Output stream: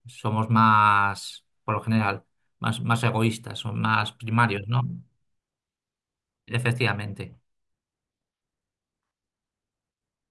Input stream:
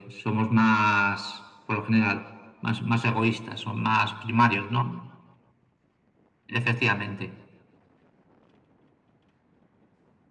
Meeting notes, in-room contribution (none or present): none